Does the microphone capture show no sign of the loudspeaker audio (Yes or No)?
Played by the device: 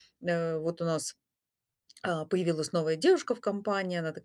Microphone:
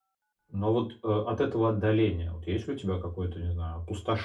Yes